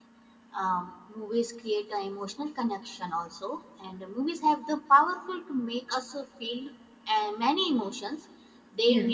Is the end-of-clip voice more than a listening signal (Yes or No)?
No